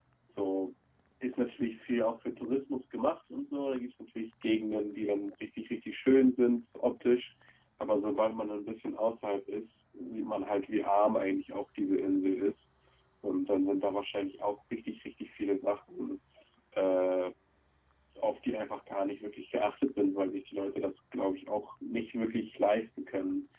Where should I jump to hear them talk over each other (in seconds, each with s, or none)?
none